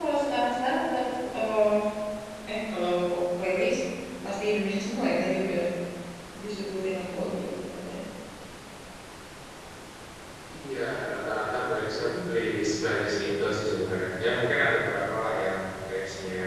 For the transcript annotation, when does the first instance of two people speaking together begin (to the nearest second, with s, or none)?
none